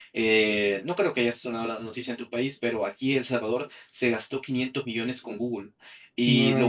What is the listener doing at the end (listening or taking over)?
listening